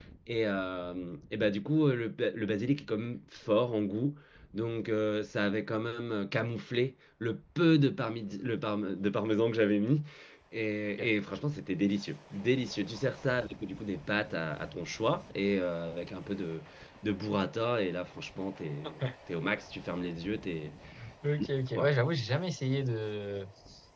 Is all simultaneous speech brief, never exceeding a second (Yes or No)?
Yes